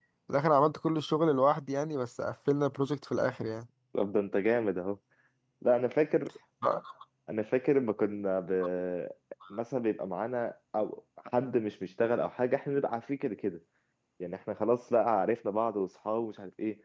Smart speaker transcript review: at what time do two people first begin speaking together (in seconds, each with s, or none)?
none